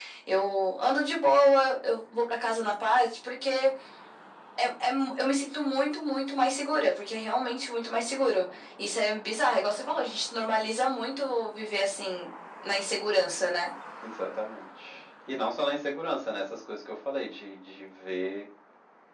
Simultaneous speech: No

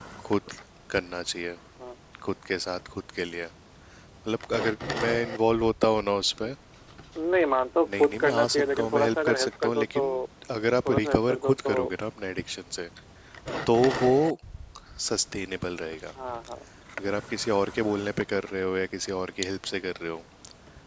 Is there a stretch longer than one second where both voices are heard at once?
Yes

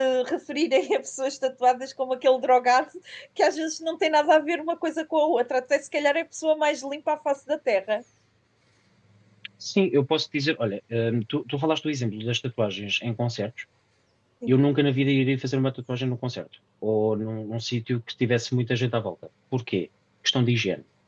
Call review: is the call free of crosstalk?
Yes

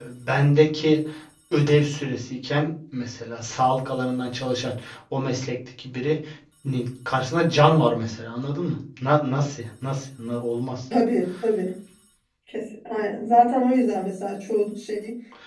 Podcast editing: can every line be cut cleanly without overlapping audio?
Yes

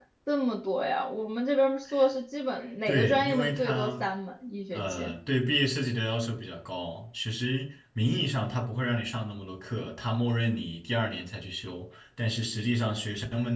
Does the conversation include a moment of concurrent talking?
Yes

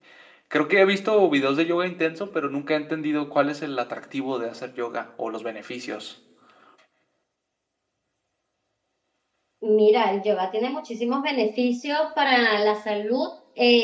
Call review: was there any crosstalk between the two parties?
No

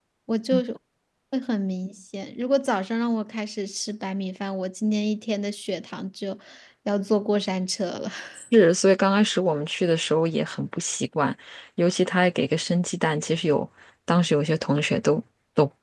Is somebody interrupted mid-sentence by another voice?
No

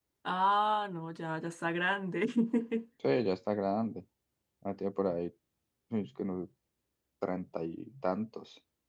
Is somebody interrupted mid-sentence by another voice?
No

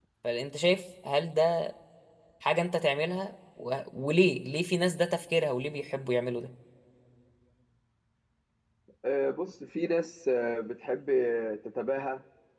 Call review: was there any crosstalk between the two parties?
No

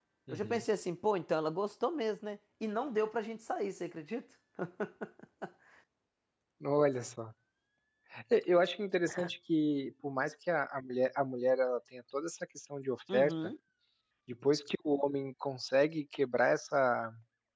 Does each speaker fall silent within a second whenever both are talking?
Yes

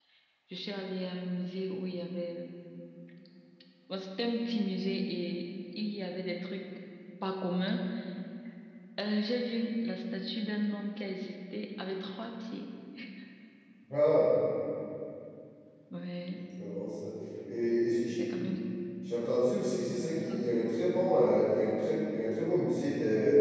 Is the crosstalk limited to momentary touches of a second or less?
Yes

